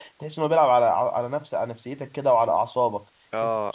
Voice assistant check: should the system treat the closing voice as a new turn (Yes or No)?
Yes